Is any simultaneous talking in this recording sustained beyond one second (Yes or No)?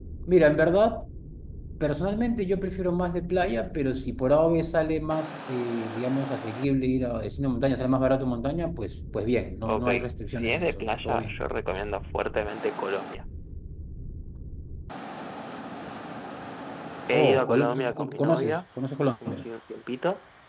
Yes